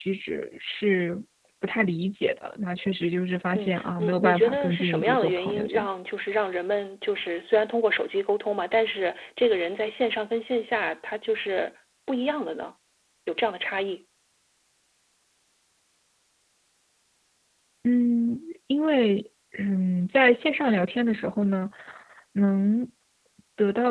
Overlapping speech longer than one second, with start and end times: 3.5-5.9

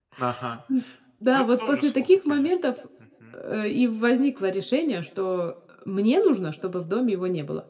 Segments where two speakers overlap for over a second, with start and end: 1.3-2.5

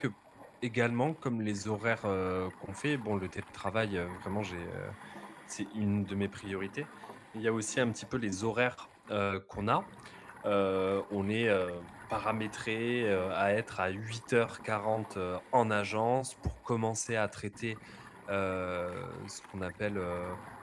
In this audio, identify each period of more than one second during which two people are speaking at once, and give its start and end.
none

